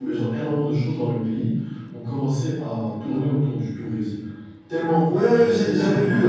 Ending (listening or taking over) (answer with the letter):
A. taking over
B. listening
A